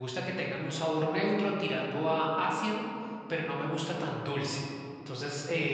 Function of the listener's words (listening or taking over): listening